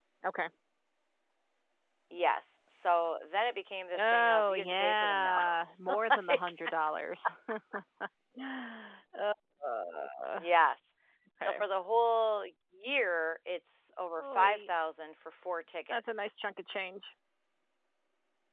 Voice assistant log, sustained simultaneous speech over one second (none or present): present